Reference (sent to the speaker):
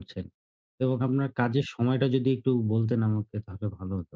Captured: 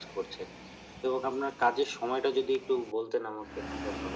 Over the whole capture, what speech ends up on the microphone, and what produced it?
echo only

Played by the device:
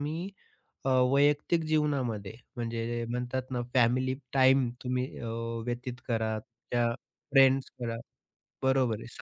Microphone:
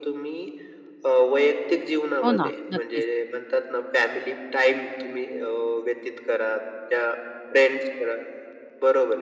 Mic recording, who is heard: both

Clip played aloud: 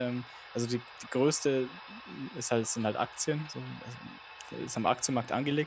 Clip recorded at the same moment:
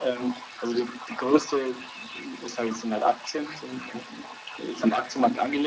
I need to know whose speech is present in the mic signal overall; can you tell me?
echo only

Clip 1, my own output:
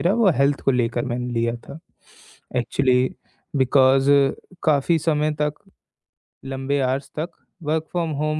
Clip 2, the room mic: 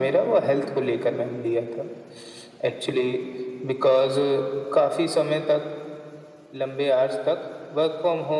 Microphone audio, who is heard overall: echo only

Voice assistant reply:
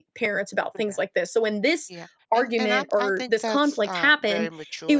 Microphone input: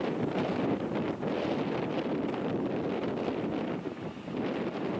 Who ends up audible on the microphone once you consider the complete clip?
neither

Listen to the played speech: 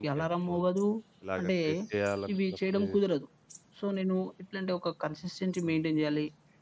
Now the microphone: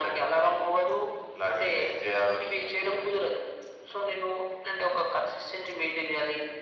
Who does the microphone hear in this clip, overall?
echo only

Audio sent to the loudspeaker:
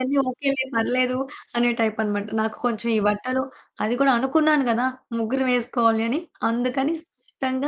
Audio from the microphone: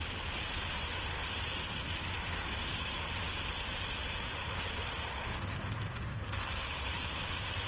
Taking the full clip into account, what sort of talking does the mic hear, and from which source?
neither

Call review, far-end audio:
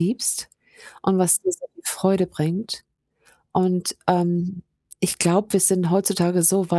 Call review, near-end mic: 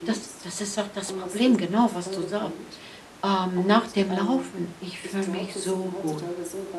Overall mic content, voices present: both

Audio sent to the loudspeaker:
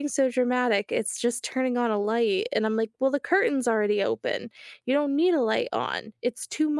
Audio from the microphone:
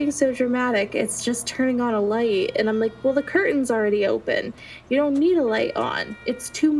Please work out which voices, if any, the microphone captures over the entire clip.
echo only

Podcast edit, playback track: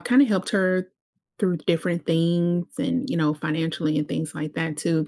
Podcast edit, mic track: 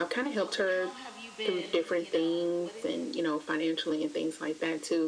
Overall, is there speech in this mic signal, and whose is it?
both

